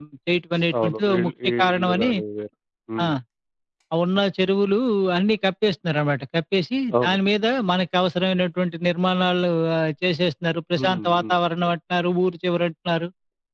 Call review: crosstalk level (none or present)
present